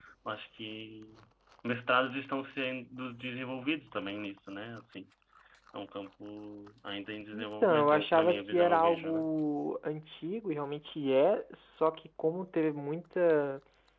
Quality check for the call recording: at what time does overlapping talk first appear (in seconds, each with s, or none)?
7.3 s